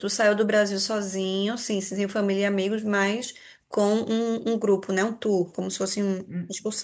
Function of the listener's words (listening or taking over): taking over